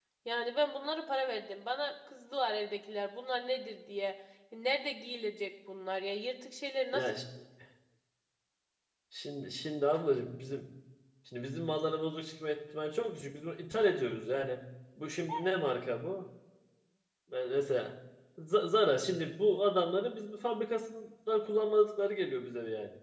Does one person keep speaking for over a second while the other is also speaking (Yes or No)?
No